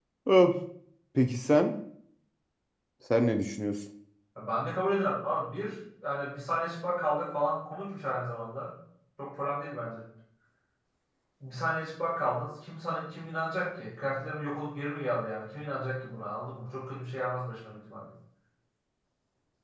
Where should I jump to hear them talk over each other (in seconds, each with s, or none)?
none